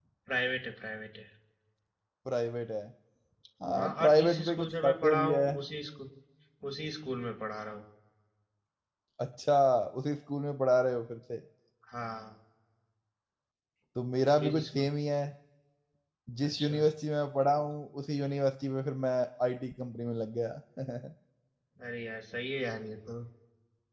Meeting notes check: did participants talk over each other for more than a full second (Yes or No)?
Yes